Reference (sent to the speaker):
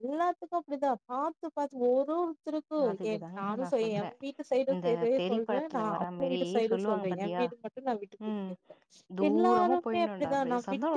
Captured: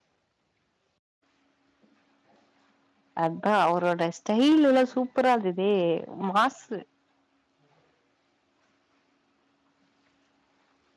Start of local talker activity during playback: 3.2 s

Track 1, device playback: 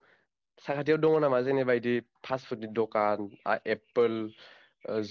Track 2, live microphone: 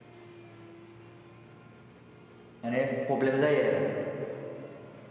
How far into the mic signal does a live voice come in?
2.7 s

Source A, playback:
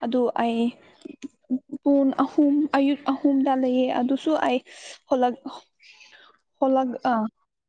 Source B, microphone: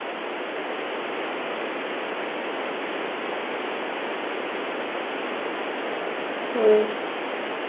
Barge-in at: 6.5 s

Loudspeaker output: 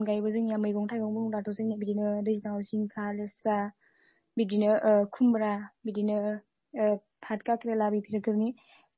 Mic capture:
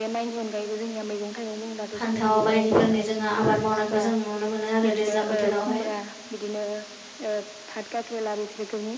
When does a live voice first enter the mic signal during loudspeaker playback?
2.0 s

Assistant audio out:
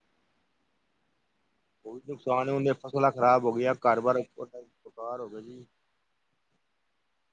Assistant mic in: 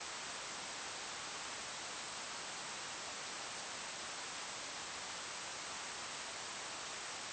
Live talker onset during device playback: none

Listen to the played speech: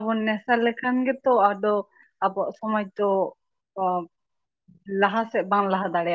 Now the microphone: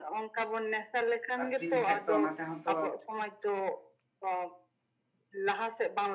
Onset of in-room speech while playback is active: 1.4 s

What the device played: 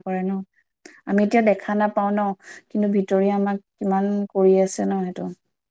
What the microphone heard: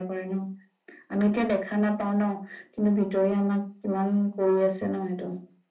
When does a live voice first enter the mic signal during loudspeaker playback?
none

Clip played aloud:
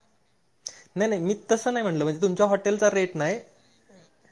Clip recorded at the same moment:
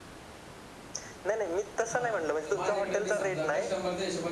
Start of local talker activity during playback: 1.9 s

